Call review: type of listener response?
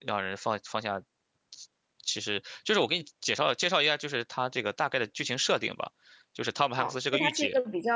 taking over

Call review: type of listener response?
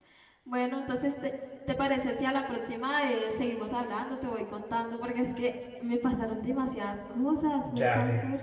taking over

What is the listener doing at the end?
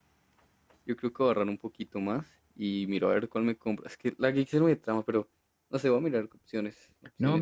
taking over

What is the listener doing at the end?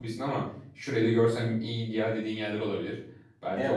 taking over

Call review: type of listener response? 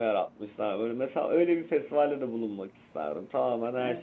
taking over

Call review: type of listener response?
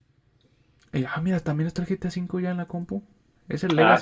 listening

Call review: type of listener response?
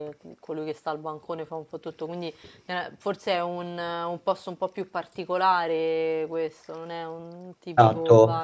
taking over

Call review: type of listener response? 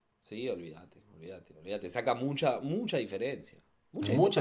taking over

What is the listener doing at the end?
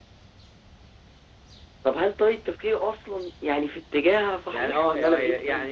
taking over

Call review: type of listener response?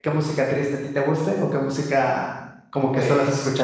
taking over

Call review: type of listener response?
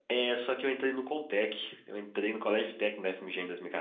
listening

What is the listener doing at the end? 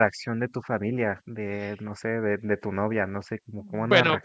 taking over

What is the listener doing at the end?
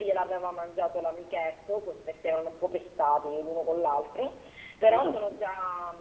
listening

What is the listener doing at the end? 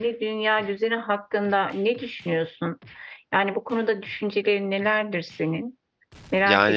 taking over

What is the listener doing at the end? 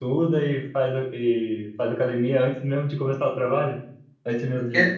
taking over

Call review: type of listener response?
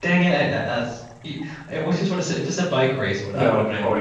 taking over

